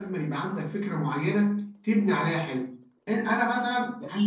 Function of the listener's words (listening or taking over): taking over